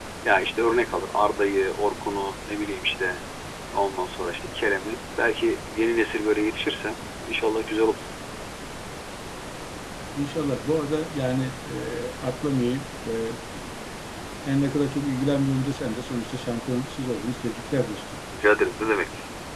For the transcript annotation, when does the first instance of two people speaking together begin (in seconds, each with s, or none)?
none